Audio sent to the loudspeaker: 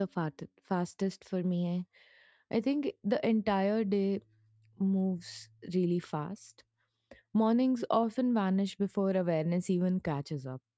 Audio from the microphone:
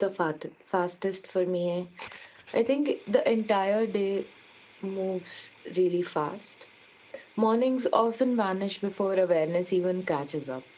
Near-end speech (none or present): none